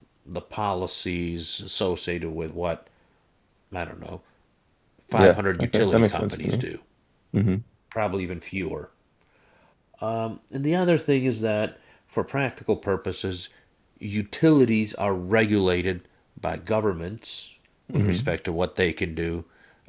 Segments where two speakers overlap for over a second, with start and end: 5.1-6.6

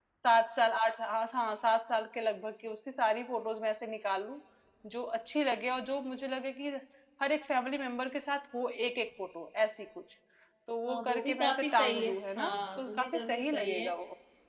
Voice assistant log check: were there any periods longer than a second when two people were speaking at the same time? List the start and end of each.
10.9-13.9

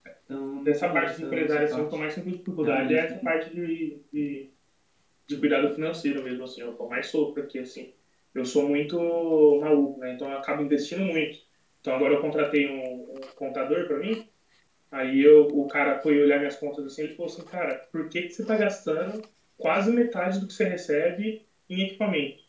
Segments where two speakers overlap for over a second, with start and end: 0.6-2.0

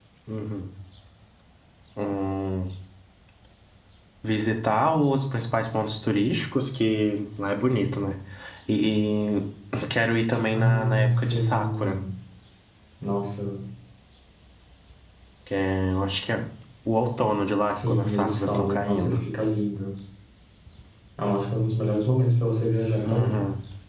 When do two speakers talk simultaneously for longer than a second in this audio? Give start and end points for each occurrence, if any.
10.5-12.0, 17.7-19.2

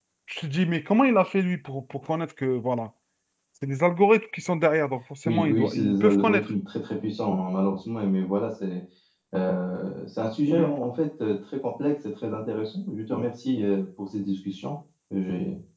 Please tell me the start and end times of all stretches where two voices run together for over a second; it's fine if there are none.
5.2-6.5

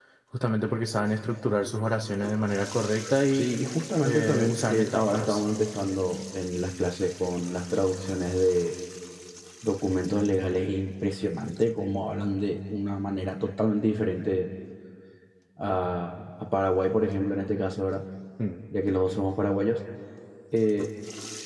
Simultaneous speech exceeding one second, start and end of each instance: 4.0-5.4

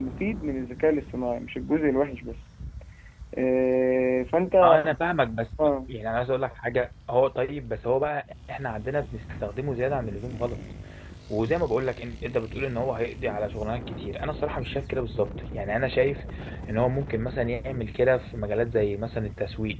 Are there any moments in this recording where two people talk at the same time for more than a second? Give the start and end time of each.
none

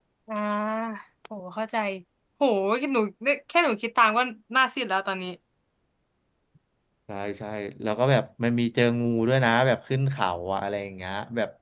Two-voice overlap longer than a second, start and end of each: none

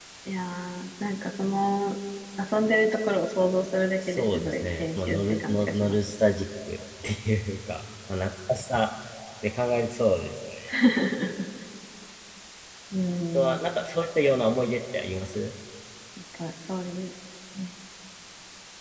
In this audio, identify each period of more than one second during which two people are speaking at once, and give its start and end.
4.1-6.0

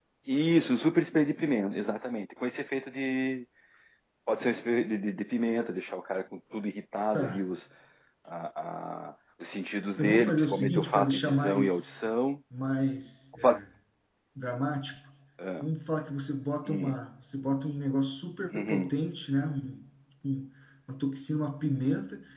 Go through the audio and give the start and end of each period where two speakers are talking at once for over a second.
10.0-11.9

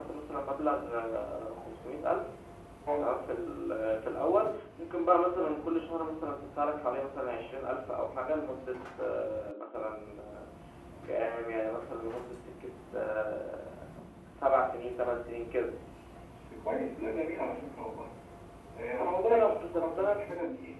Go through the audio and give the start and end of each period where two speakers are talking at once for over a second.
19.0-20.2

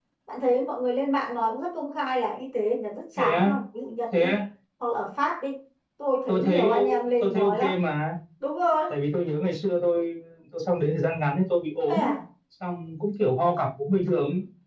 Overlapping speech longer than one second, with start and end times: 6.3-7.8

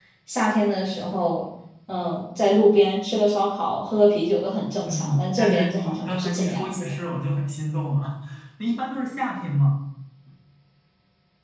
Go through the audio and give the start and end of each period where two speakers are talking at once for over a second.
4.9-6.8

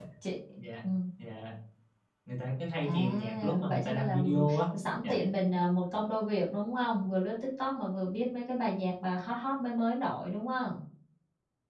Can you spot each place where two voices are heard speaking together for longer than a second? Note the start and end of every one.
2.8-4.6

